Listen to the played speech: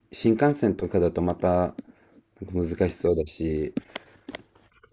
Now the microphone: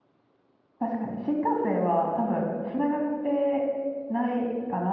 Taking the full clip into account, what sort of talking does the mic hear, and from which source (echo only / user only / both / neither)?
user only